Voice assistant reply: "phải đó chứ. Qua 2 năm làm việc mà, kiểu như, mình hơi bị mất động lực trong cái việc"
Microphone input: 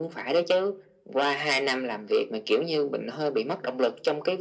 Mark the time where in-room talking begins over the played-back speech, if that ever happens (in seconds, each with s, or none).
none